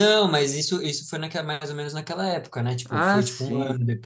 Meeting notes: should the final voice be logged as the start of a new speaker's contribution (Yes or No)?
Yes